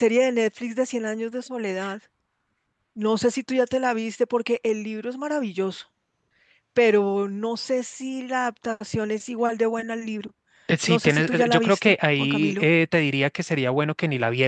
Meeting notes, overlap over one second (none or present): present